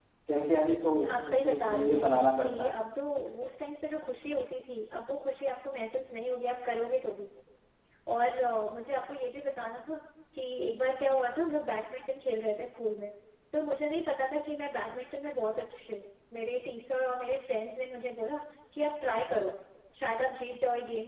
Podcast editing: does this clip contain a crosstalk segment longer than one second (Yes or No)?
Yes